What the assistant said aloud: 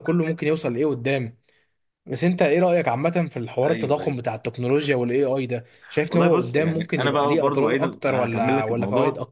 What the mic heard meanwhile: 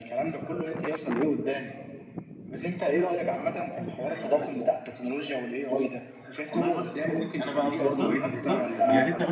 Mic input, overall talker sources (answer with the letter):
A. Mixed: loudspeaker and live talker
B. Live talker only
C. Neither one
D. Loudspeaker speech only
A